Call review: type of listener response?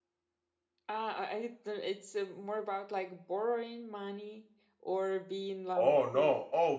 taking over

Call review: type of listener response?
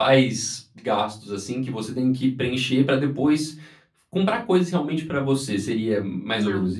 taking over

